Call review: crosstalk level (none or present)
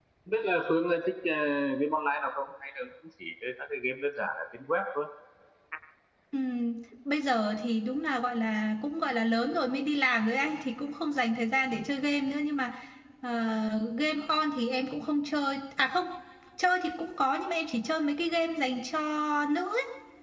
none